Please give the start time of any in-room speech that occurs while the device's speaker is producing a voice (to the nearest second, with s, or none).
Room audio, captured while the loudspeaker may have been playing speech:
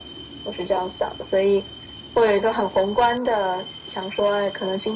none